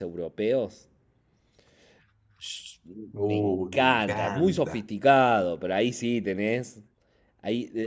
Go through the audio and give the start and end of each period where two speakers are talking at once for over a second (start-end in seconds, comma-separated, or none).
3.3-4.8